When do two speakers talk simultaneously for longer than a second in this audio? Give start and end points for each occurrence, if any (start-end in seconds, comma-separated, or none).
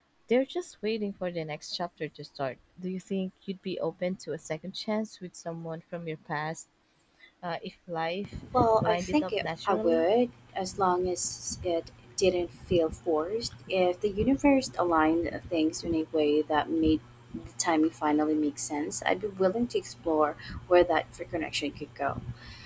8.8-10.1